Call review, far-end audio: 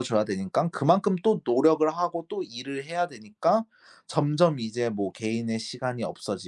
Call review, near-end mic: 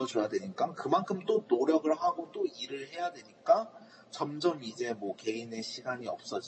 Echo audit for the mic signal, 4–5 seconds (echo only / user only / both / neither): echo only